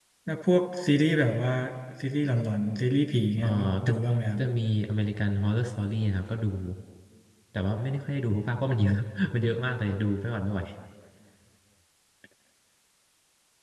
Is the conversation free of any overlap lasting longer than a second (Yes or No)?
Yes